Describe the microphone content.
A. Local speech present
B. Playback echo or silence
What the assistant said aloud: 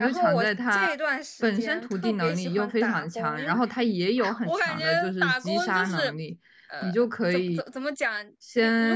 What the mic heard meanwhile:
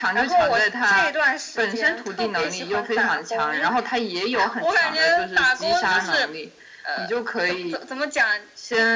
B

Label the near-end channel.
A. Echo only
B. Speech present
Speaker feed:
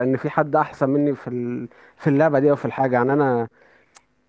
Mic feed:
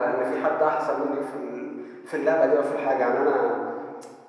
A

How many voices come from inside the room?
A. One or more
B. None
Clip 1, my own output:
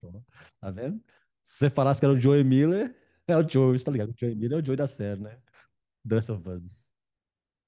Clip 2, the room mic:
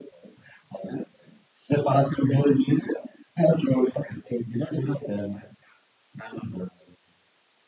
B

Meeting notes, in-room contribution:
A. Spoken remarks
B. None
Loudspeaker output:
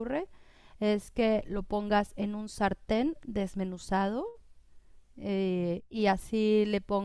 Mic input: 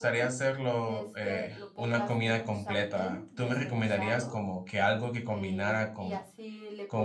A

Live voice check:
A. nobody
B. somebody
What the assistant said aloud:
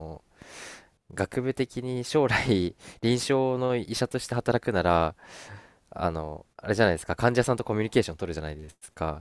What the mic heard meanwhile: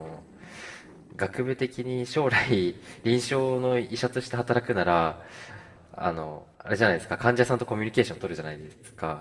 A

